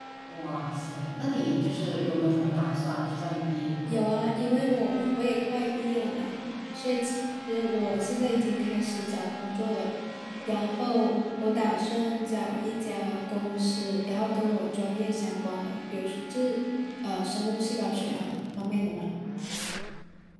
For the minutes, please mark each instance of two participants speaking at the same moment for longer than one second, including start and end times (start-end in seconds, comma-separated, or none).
none